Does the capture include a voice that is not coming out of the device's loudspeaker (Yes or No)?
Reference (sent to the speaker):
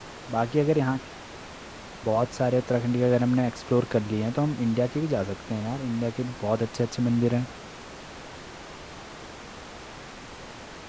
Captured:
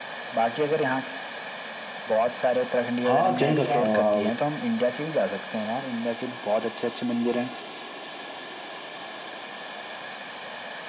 Yes